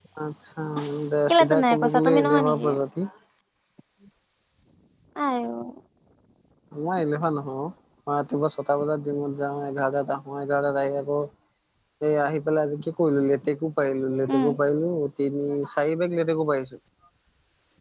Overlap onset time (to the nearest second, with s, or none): 1 s